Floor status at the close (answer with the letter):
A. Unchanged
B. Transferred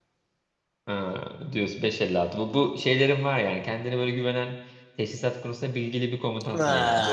B